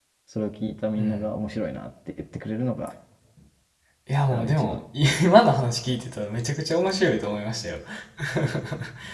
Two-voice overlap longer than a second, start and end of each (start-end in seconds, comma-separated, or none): none